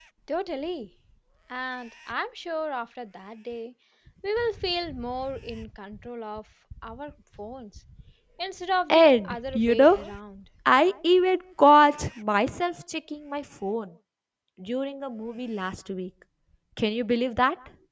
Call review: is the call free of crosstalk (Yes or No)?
No